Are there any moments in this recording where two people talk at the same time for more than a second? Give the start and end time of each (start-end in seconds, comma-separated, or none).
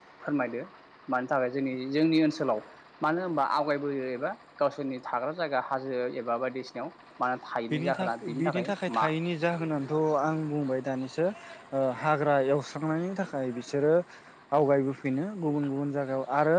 7.7-9.0